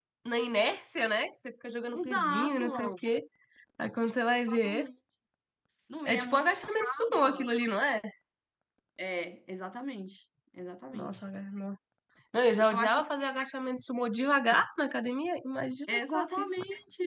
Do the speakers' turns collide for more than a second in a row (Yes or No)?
Yes